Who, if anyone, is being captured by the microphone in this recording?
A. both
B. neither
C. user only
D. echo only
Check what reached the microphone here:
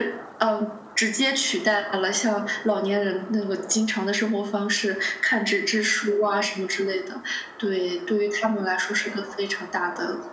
D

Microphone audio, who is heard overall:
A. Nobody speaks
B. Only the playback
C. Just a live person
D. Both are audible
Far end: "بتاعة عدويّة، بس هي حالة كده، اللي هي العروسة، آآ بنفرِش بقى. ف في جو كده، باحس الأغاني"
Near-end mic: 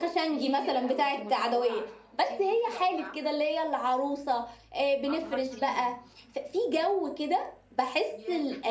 D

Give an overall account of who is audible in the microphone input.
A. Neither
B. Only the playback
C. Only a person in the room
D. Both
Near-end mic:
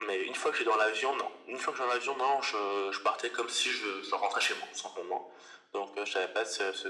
B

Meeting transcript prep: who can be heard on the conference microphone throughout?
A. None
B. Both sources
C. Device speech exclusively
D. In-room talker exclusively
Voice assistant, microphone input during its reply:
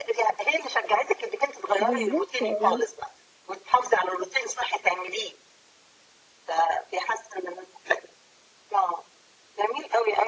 B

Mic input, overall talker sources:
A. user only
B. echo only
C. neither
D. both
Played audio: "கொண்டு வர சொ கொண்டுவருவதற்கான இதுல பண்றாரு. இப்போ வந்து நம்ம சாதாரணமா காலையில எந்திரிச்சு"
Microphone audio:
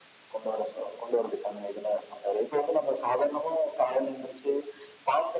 B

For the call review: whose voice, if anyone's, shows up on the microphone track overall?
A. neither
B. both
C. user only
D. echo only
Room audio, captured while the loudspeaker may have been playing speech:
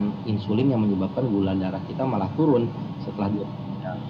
D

